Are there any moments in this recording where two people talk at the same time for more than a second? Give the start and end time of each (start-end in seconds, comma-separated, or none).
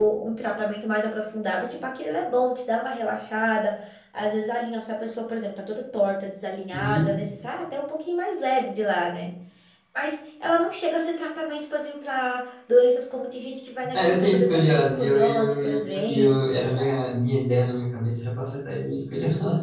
13.9-16.8